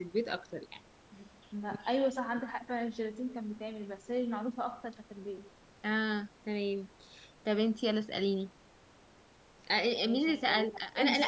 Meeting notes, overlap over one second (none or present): present